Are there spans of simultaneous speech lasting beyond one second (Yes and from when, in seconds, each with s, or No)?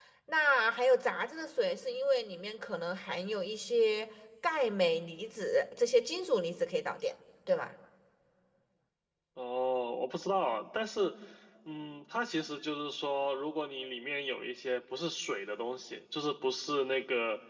No